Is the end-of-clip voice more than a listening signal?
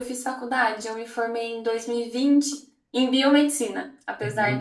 No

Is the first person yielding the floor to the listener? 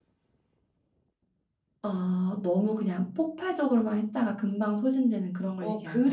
Yes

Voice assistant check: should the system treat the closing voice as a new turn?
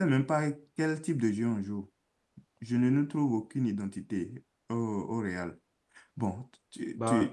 No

